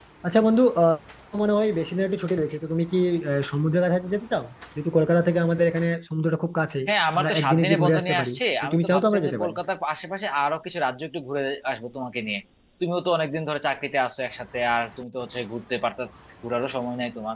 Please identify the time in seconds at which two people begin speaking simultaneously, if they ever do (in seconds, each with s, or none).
7.2 s